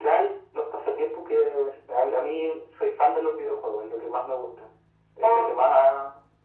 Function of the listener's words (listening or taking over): listening